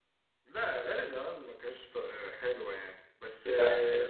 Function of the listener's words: listening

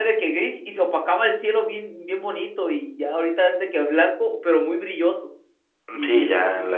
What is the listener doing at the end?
taking over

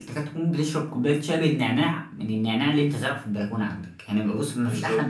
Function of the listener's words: taking over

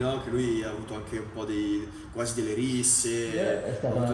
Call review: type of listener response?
taking over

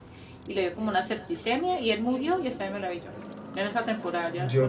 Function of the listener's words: taking over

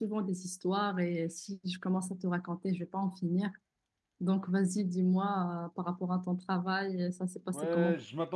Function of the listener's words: taking over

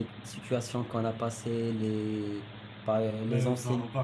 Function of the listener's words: taking over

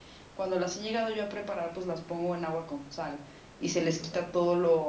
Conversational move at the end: listening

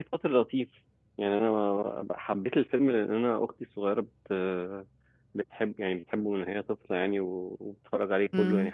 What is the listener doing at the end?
listening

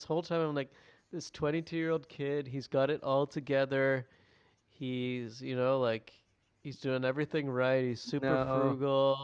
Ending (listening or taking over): listening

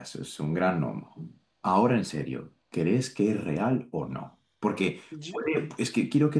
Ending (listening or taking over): listening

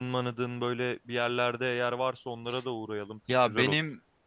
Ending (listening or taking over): taking over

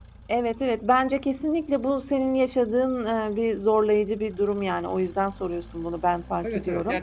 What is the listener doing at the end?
taking over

